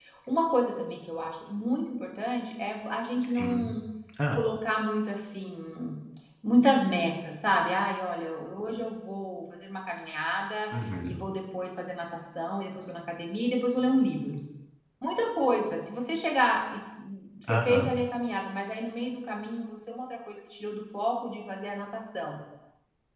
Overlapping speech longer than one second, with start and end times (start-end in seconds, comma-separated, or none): none